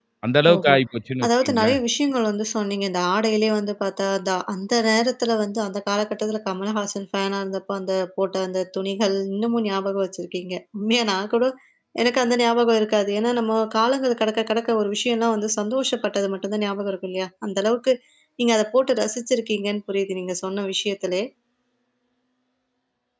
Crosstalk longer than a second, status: none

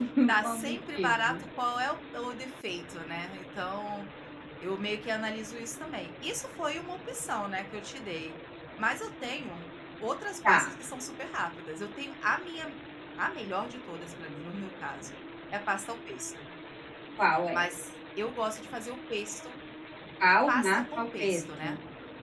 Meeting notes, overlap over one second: present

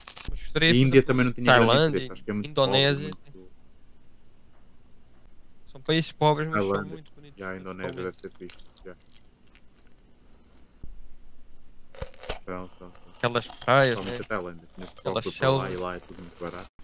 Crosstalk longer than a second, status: present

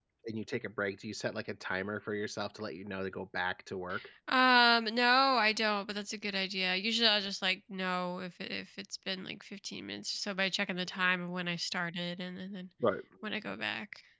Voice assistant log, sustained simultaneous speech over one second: none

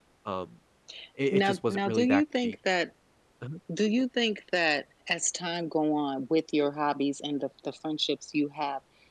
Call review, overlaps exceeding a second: present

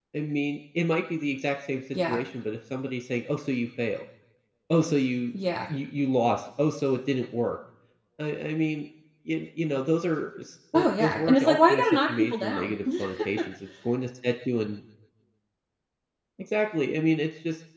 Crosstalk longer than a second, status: present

